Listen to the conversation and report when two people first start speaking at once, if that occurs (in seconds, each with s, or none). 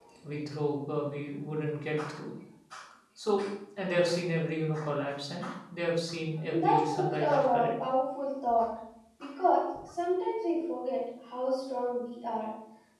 6.5 s